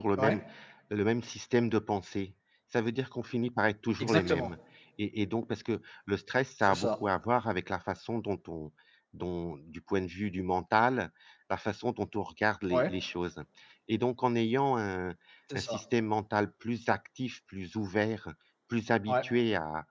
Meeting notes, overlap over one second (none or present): none